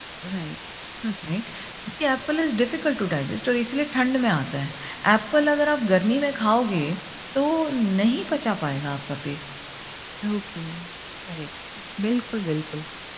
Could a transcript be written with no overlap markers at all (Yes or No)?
Yes